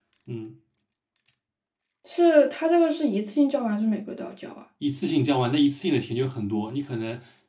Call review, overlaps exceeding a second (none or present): none